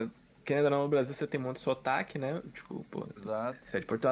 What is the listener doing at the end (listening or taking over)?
listening